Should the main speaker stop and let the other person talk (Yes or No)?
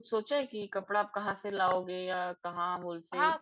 Yes